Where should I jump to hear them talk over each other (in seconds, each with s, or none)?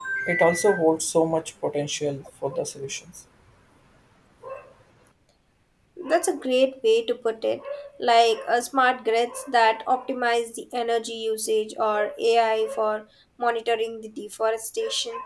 none